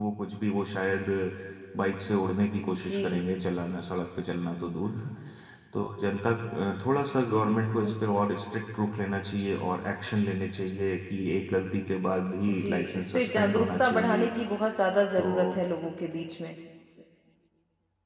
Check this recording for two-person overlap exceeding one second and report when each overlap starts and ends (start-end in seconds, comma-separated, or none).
12.5-14.3